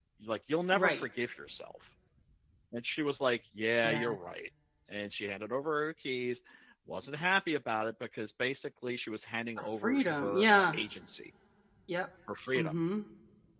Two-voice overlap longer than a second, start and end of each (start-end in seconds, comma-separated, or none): 9.6-10.8